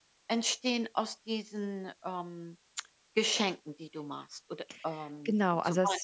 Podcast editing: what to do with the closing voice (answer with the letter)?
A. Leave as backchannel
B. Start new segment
B